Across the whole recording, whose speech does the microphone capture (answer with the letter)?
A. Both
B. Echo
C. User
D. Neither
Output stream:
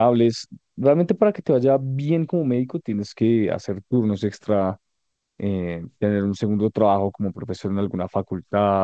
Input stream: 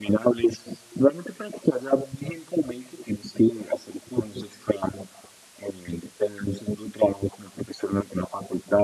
B